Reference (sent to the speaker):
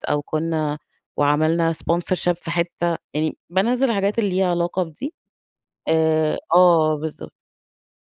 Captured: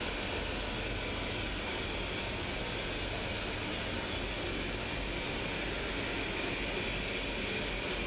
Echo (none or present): none